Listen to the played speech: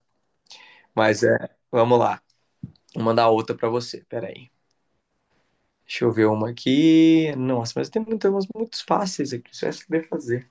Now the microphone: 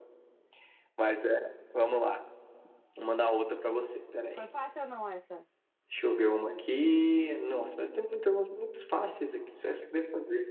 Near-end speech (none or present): present